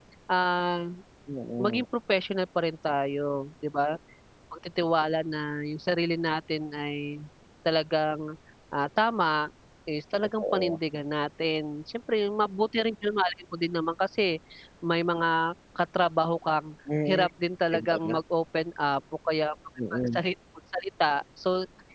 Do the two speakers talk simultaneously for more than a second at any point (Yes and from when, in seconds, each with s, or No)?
No